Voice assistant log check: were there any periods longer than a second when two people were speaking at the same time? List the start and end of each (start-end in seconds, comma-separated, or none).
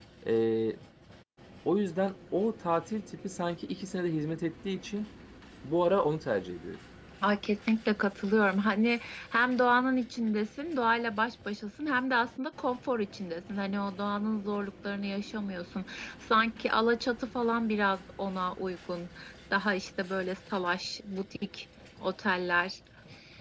none